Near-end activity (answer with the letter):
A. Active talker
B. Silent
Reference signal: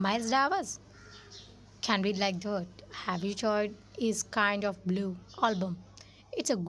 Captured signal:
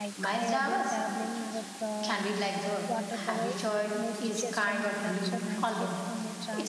A